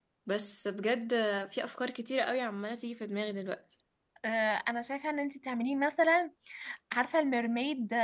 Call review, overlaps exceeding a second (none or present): none